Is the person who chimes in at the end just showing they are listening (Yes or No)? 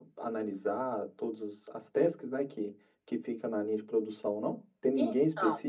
Yes